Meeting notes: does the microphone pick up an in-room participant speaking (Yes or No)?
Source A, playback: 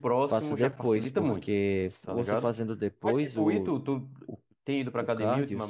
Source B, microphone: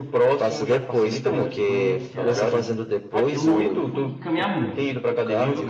Yes